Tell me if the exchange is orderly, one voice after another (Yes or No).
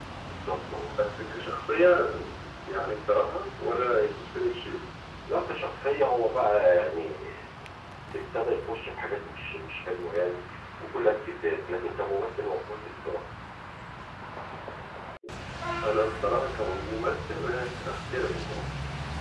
Yes